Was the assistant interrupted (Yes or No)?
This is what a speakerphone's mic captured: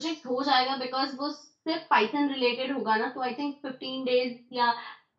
Yes